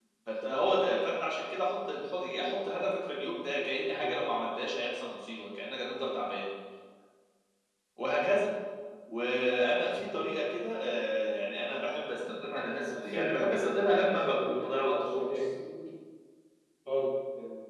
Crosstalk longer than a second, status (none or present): present